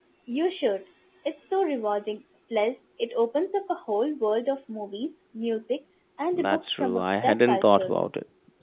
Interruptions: present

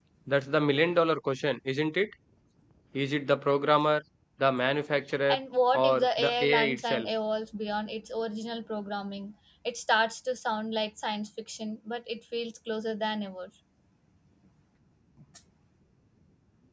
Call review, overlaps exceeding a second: present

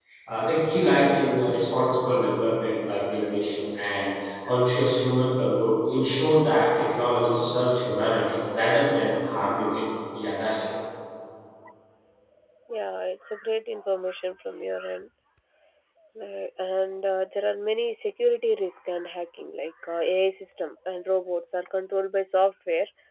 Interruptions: none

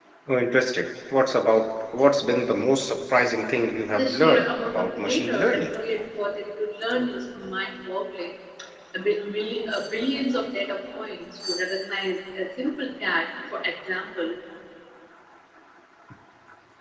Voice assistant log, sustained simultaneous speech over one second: present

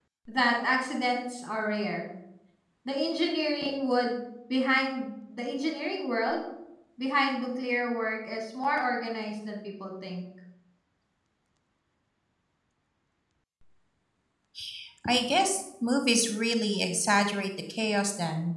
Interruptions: none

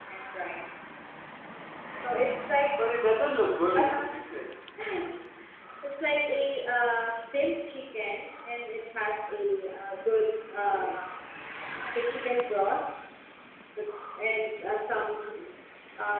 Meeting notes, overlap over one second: none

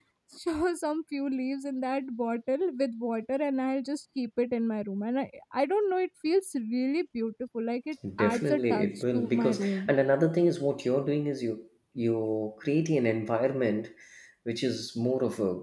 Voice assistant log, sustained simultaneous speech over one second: present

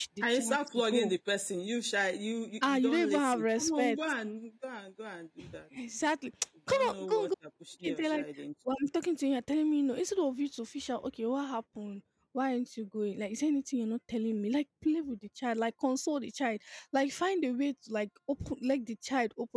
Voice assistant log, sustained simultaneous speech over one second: present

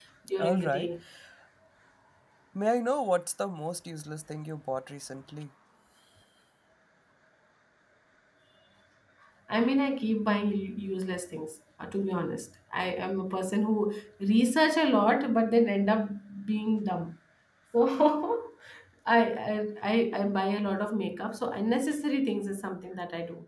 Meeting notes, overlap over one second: none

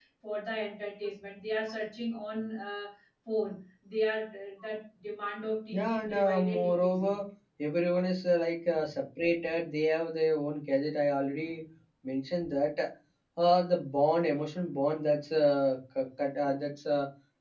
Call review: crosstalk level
present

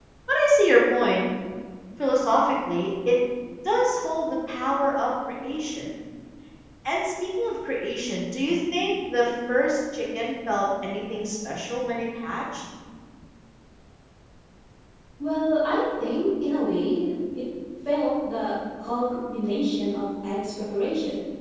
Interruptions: none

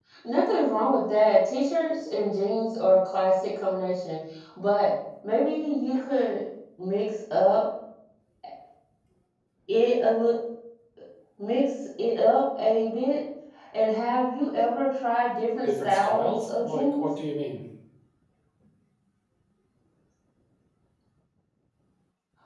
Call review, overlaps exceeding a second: present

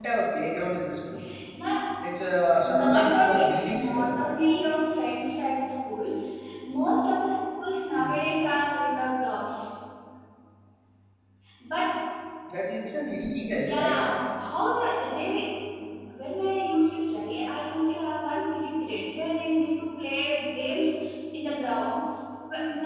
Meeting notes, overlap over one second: present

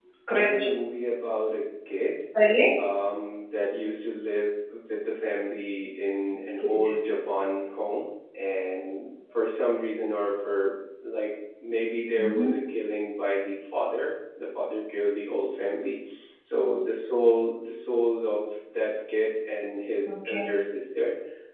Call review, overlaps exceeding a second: none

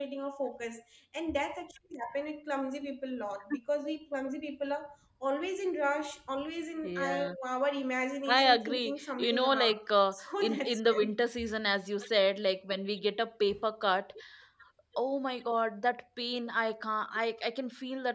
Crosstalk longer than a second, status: present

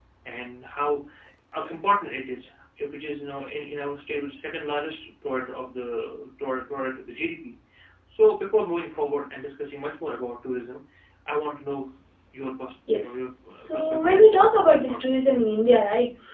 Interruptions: present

